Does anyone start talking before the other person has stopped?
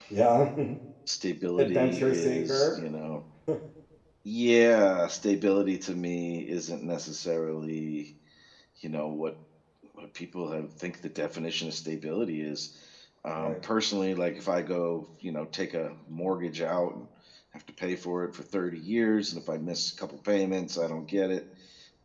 Yes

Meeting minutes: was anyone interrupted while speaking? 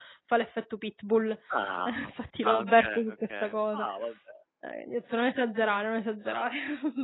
Yes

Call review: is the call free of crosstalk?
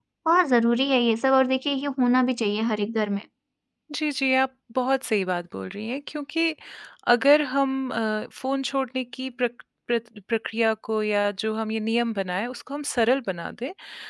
Yes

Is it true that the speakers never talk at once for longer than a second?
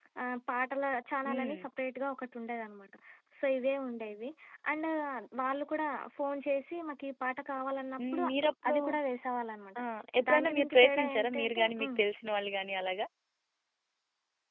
No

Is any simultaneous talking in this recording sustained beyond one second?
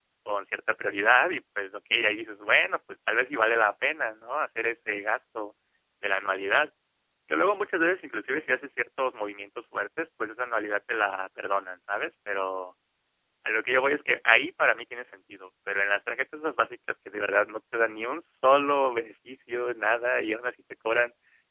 No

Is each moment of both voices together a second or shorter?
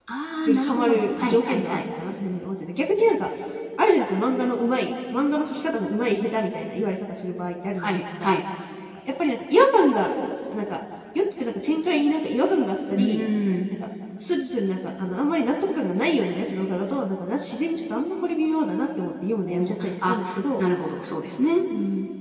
No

